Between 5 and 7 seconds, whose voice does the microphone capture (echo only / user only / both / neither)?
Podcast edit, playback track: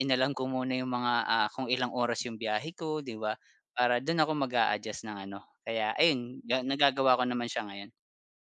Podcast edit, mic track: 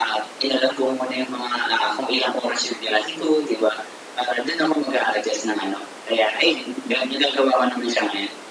echo only